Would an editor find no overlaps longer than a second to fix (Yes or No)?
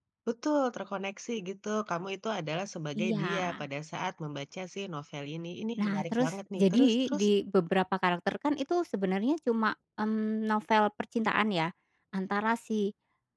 No